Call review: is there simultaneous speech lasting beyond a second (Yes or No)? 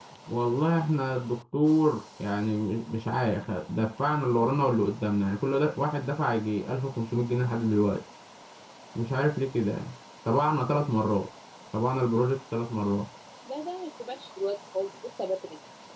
No